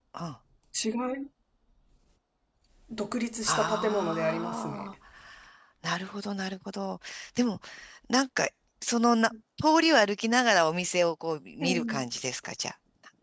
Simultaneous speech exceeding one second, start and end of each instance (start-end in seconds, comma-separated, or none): 3.5-4.9